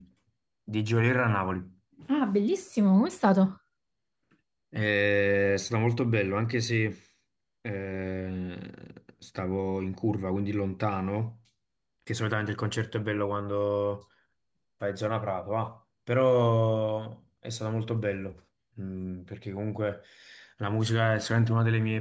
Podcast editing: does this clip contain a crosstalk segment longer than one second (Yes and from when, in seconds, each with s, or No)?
No